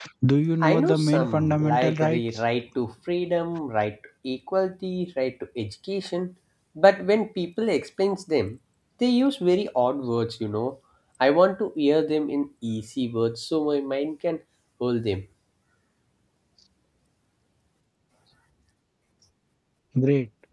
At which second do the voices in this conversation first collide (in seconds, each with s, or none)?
0.6 s